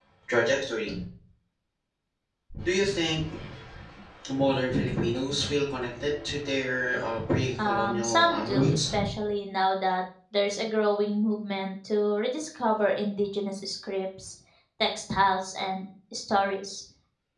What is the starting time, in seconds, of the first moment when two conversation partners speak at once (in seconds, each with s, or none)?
7.6 s